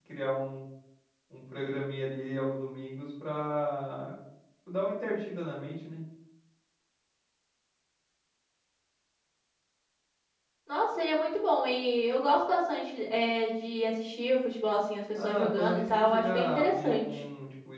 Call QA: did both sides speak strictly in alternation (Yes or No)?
No